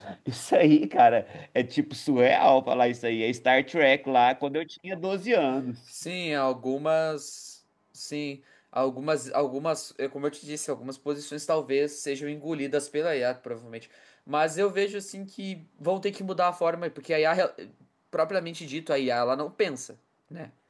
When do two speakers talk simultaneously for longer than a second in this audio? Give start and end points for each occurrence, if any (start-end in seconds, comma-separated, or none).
none